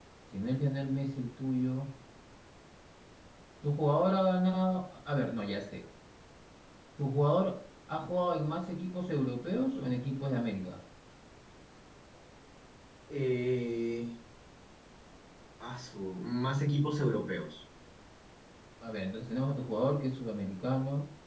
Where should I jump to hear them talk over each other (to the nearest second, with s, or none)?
none